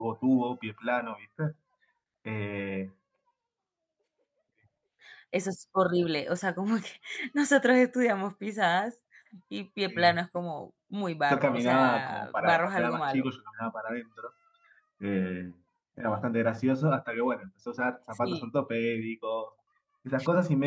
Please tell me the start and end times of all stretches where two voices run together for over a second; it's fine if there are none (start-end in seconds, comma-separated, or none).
11.3-13.3